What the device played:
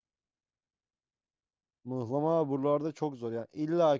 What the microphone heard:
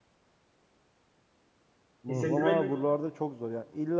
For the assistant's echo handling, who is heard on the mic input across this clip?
both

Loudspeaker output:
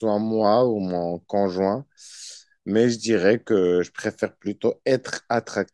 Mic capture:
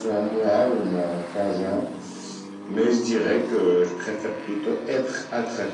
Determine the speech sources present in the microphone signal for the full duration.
echo only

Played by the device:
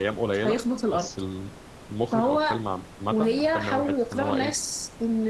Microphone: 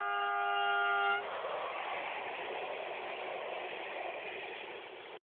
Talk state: neither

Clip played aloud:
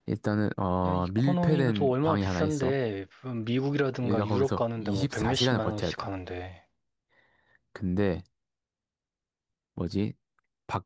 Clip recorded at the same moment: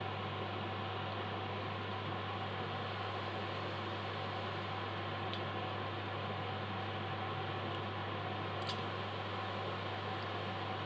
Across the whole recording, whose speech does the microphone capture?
neither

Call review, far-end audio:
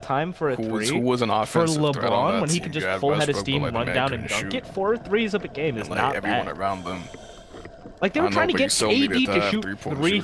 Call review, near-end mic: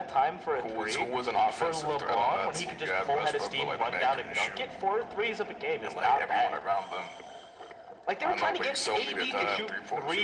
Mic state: echo only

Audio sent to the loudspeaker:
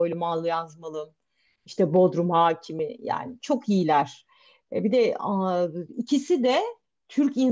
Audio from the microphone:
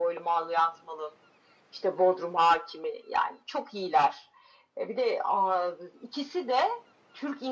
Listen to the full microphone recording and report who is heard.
echo only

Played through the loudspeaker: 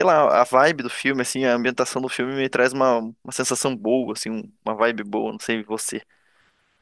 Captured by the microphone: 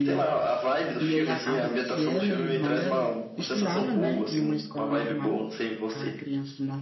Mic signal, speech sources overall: both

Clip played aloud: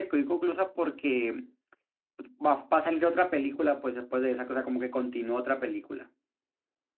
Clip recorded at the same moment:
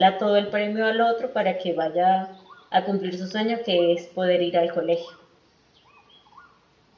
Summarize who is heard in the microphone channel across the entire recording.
user only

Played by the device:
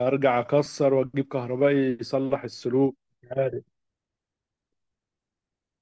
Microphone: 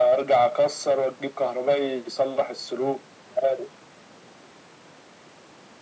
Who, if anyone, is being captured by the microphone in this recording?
echo only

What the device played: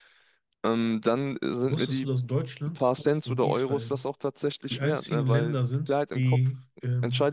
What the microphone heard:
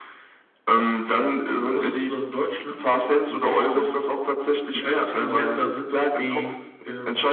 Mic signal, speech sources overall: echo only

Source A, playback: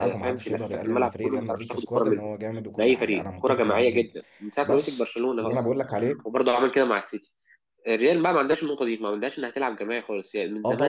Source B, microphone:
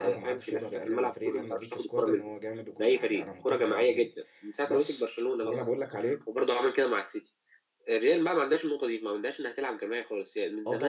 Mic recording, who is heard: echo only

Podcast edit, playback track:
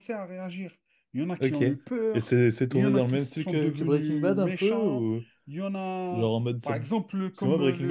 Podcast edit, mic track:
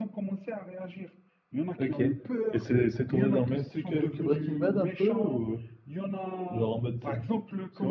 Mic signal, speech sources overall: echo only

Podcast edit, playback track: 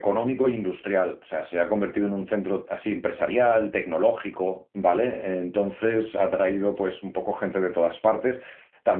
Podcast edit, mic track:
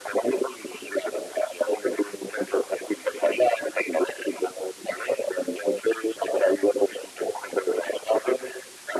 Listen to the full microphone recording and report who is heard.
echo only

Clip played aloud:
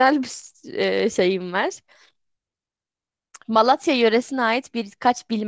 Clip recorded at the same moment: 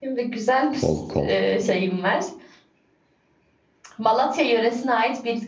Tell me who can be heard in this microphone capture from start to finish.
both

